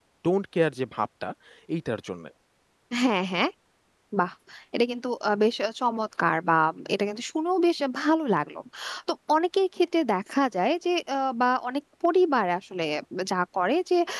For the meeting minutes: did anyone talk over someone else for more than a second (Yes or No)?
No